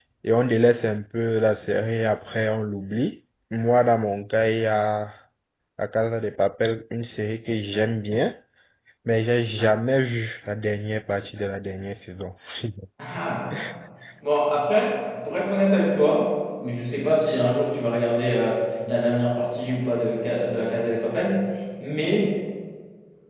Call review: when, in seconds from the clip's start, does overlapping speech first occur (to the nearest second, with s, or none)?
none